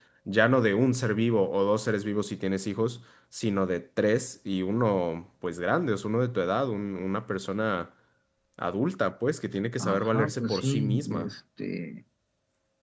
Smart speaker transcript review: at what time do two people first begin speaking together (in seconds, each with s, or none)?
9.8 s